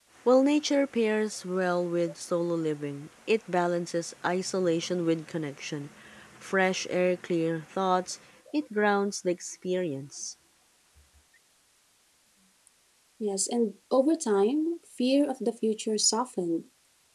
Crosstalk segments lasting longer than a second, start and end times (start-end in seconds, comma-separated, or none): none